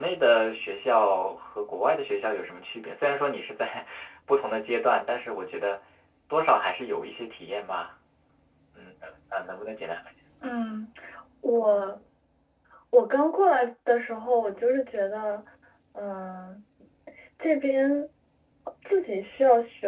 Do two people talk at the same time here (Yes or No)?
No